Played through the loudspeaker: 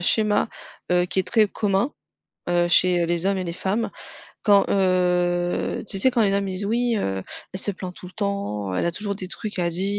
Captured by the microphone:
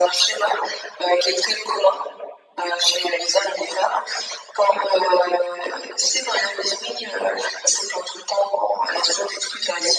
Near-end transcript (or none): none